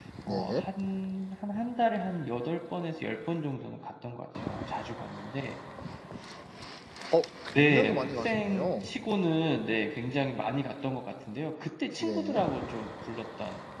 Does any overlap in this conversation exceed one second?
Yes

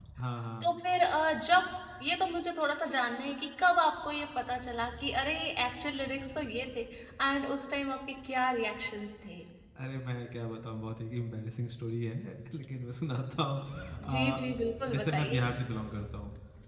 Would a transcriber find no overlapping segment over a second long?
Yes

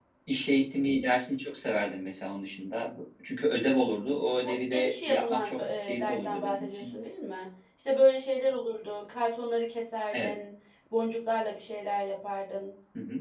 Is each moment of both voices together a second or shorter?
No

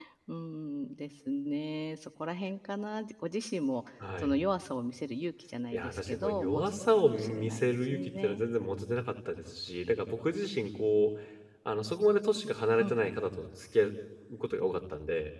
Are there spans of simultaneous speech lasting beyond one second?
Yes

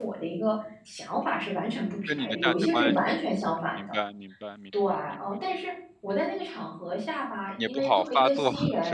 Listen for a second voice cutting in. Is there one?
Yes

